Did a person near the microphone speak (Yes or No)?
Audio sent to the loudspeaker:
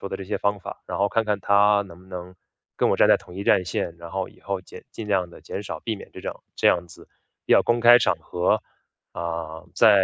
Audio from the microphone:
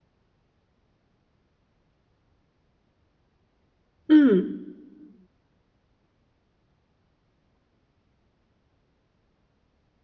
Yes